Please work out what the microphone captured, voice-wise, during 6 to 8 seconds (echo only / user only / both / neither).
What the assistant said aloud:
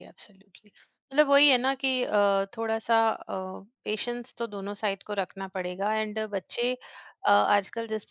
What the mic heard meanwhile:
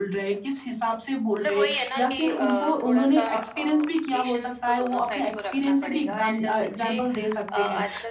both